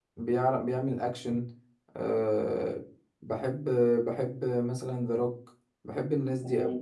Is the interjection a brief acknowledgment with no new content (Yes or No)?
No